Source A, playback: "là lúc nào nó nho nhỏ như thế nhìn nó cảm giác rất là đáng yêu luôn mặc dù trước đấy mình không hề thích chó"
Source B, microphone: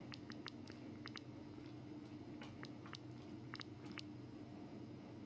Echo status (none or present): none